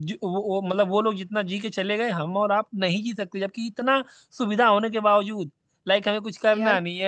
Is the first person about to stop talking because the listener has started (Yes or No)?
No